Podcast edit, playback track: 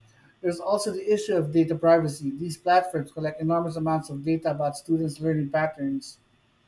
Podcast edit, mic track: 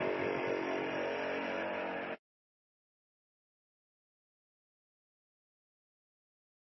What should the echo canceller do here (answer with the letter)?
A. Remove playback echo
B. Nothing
B